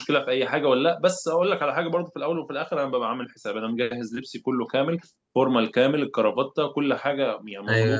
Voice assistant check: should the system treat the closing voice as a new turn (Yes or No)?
No